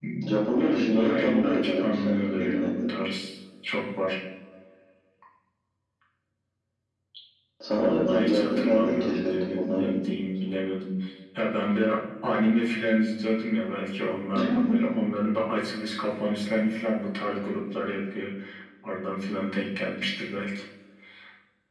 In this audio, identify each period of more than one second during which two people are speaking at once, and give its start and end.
0.6-2.9, 7.7-9.9

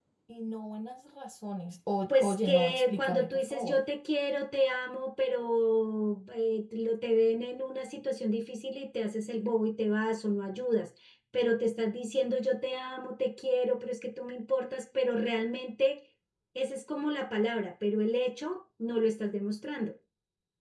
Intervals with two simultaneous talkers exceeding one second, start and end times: 2.1-3.8

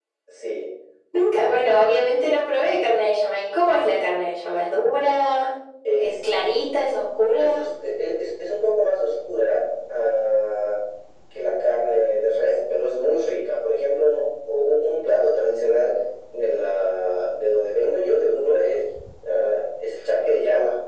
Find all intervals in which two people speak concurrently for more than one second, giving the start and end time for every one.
none

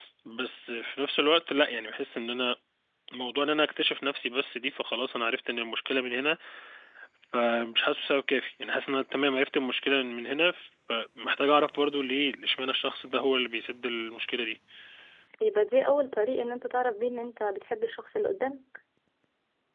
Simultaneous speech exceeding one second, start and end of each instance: none

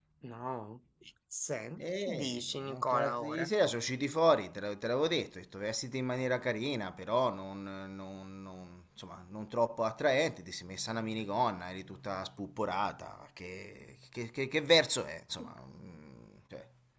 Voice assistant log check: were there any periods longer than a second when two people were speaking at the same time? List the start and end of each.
2.0-3.5

